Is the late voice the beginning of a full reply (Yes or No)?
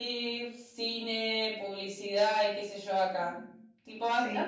No